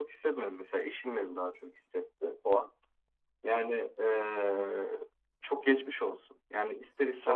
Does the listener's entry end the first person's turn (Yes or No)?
No